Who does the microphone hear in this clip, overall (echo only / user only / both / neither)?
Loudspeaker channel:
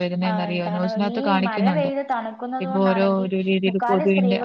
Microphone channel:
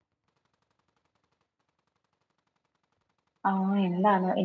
user only